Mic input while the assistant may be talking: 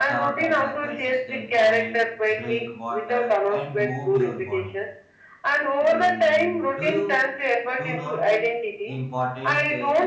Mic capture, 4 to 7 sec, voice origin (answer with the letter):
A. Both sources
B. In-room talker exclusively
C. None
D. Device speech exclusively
A